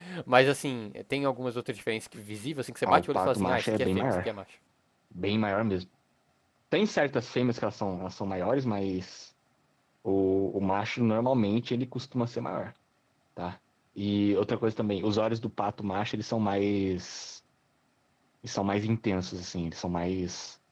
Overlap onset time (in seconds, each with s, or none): 2.9 s